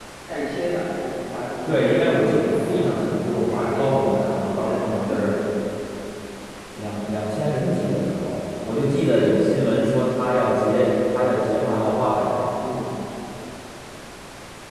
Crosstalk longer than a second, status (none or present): present